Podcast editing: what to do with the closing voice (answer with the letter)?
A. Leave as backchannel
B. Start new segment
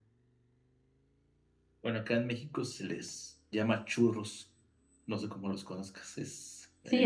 B